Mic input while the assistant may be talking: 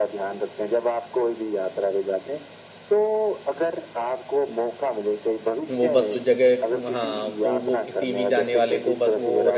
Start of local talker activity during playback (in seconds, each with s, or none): 5.7 s